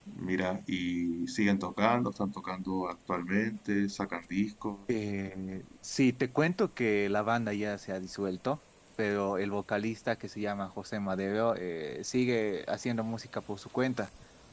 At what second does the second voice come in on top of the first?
none

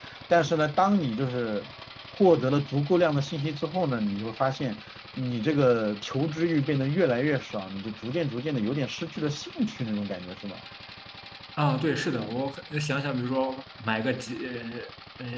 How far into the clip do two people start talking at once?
none

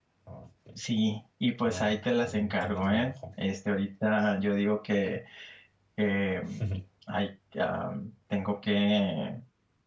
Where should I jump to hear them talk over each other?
1.6 s

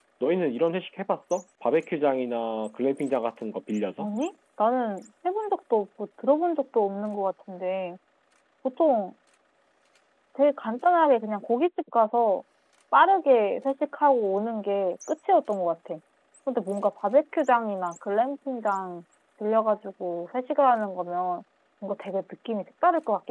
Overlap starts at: none

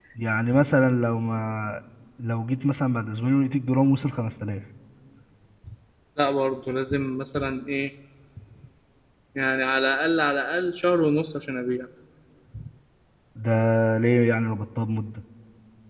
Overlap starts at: none

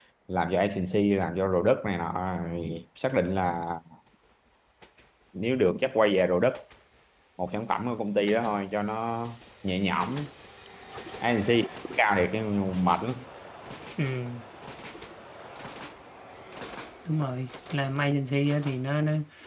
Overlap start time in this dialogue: none

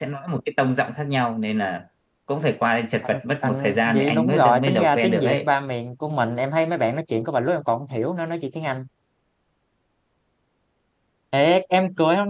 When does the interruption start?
3.0 s

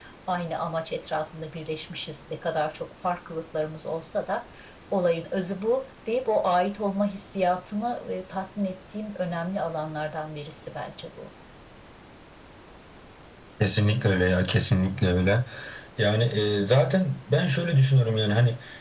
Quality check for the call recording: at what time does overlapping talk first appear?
none

